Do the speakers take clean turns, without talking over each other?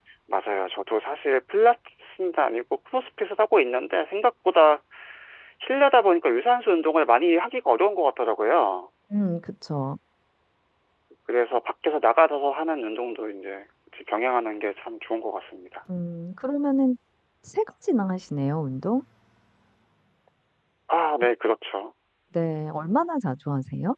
Yes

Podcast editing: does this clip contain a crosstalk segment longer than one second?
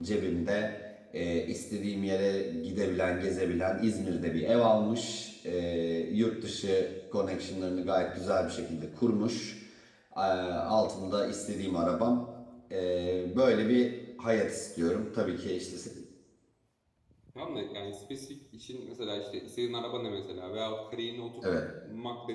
No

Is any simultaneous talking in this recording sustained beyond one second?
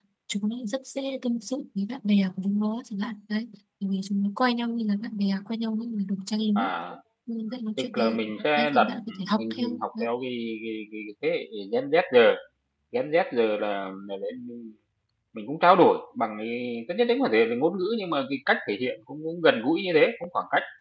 Yes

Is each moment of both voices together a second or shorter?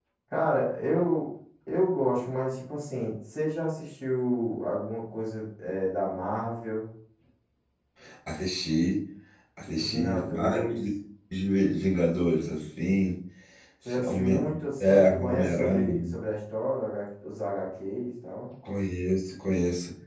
No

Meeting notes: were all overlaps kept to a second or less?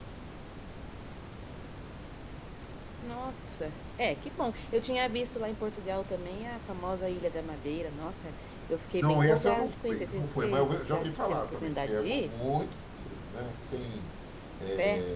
No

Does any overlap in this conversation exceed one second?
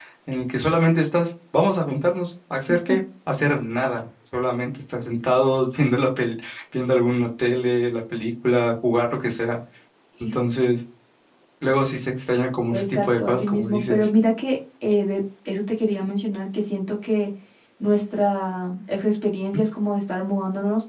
Yes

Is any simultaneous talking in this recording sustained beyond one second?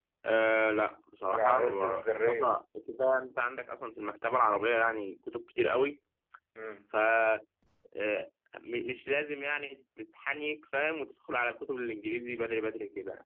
Yes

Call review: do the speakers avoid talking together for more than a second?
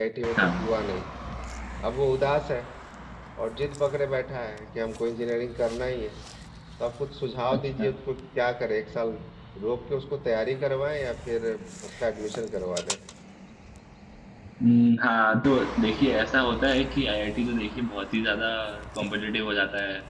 Yes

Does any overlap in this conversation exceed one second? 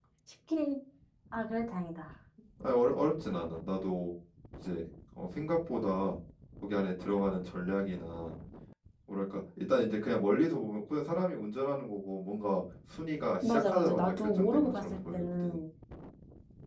Yes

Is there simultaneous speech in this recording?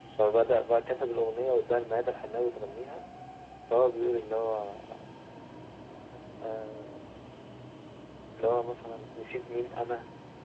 No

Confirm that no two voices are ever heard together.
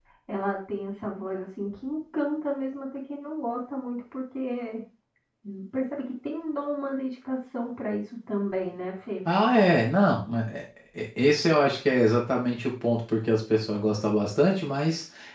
Yes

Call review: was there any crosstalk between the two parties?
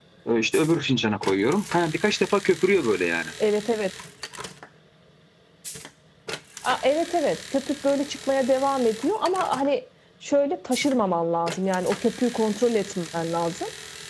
No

